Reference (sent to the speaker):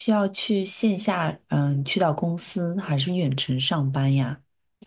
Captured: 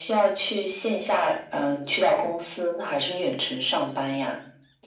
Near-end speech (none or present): none